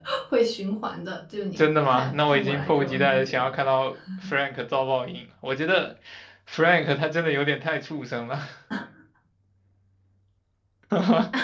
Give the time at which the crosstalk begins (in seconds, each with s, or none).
1.6 s